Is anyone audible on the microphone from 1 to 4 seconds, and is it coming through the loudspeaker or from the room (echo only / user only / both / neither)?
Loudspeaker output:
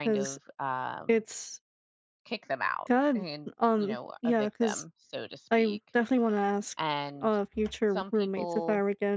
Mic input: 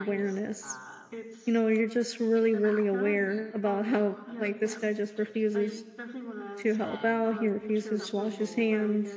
both